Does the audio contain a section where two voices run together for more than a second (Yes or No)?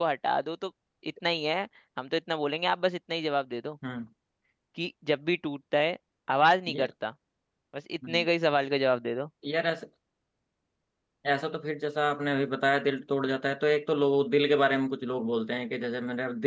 No